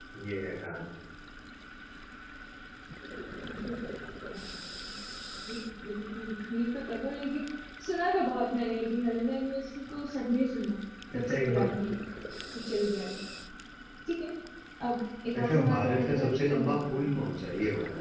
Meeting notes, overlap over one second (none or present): present